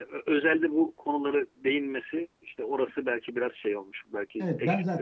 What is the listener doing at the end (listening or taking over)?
taking over